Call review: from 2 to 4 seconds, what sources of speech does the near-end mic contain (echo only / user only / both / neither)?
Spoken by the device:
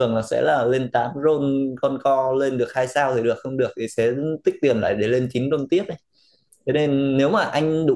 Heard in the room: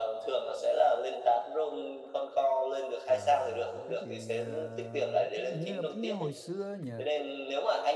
both